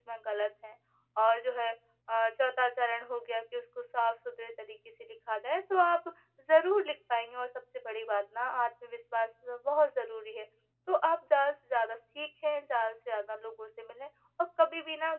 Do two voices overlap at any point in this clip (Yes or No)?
No